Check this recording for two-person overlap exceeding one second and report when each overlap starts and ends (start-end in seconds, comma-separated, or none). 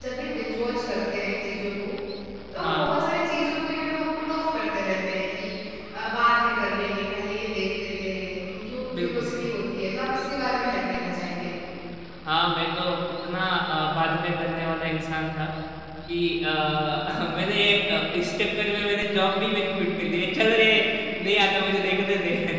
none